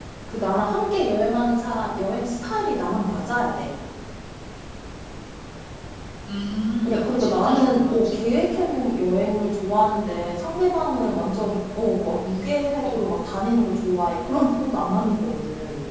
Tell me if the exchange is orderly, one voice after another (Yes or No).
No